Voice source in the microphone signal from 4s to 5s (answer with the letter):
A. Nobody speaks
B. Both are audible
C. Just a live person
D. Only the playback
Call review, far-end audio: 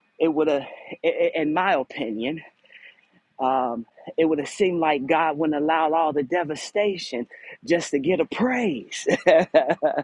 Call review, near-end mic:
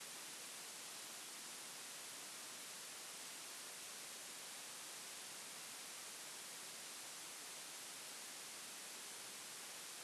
A